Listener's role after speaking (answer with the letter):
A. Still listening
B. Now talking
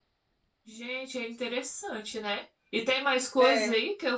A